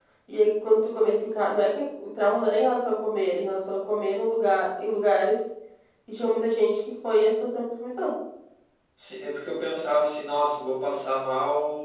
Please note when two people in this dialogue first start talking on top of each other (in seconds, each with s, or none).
none